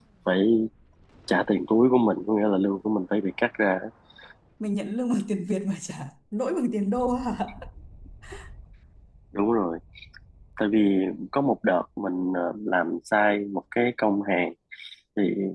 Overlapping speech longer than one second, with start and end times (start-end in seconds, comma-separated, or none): none